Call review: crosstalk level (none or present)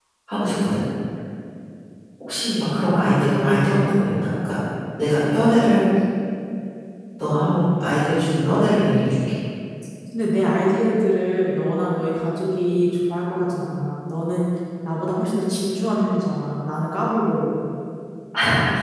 none